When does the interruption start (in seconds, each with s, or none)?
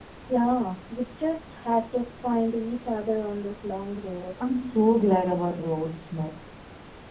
none